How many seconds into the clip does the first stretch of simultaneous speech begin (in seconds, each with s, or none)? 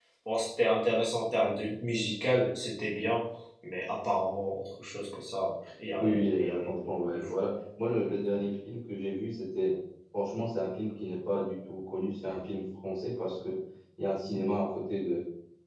6.0 s